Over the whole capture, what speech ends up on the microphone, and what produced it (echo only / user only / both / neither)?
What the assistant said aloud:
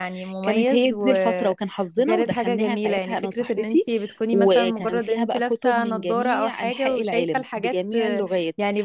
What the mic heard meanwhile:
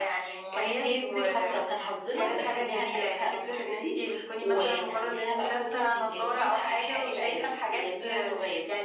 echo only